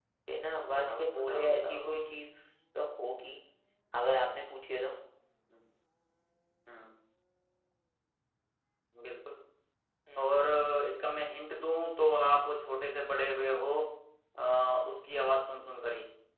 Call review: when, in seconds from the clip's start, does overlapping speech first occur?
1 s

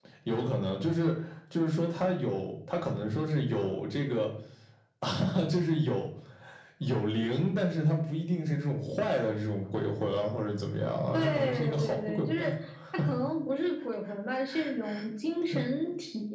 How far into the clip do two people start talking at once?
11 s

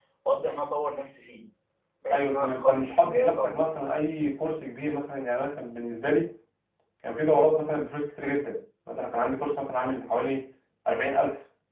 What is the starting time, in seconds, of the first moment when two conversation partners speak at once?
2 s

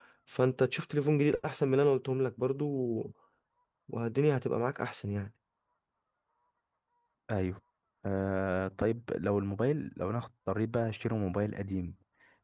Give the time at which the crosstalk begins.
none

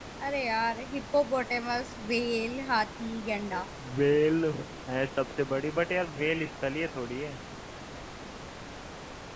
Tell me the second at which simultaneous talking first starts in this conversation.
none

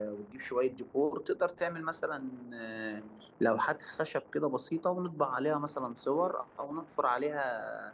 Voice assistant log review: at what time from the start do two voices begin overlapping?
none

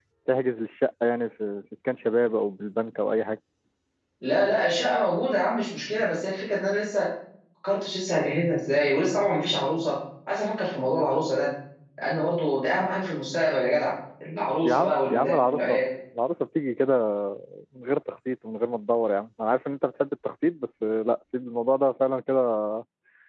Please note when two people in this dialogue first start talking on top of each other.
15 s

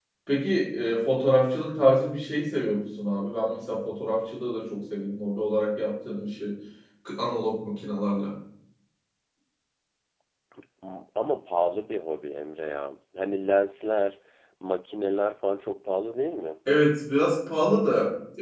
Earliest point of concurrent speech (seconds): none

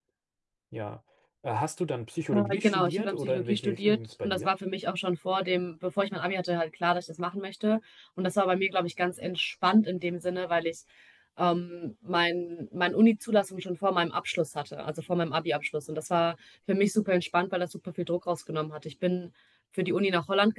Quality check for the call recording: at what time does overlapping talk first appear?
2 s

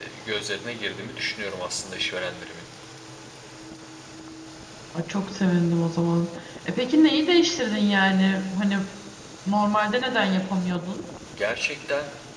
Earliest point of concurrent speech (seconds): none

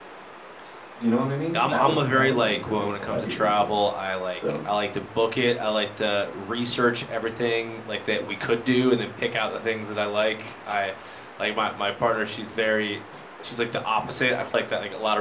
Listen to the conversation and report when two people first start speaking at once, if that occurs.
2 s

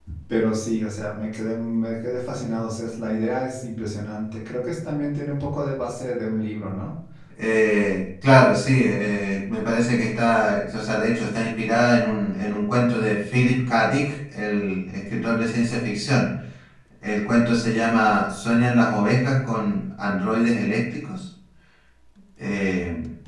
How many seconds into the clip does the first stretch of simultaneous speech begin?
none

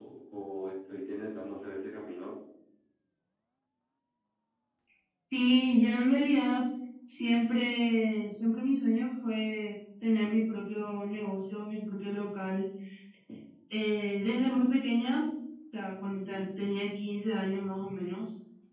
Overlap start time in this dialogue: none

